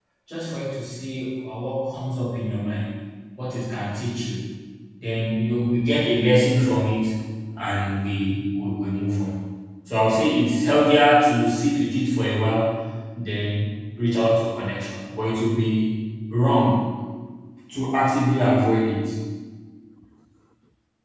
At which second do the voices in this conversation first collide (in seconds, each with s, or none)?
none